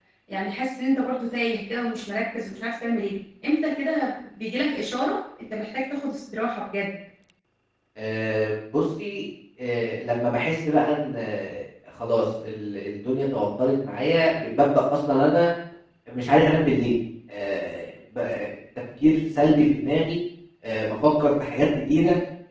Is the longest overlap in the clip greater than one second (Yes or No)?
No